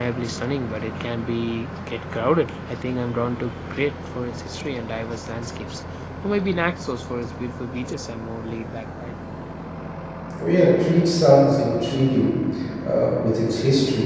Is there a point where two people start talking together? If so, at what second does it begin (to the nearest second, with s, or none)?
none